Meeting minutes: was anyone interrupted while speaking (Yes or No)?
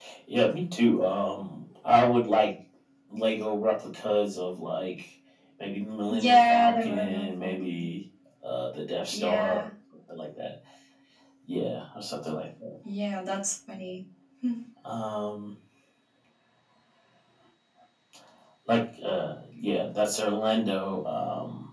Yes